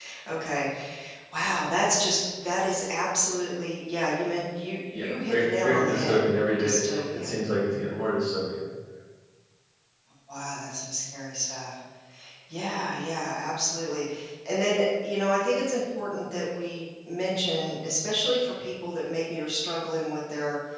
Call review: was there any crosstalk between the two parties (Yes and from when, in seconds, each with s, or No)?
Yes, from 4.9 s